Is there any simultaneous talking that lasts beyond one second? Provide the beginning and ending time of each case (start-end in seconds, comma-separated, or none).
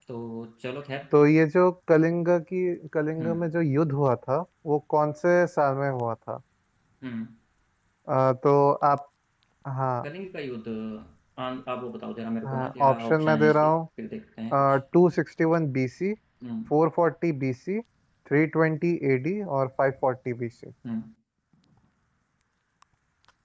12.4-13.7